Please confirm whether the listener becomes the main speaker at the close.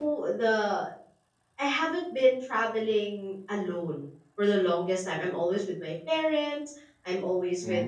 No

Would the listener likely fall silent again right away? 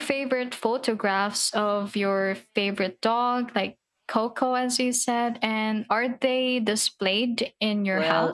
No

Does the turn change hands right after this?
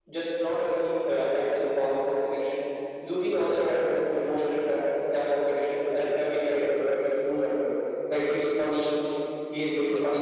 No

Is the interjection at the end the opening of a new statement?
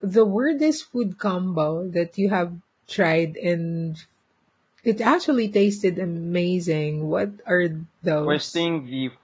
Yes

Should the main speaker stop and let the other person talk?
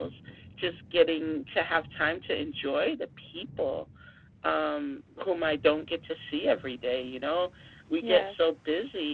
No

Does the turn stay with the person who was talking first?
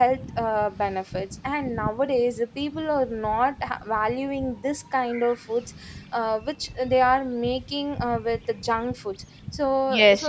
No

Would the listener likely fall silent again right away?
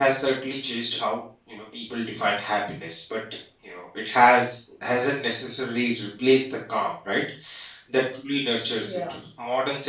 Yes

